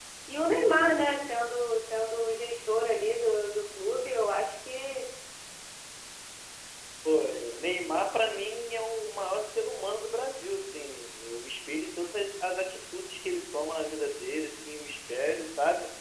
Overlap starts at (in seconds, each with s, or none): none